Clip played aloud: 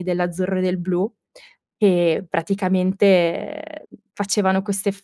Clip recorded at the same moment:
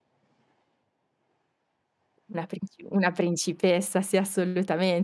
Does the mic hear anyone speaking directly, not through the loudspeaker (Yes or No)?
Yes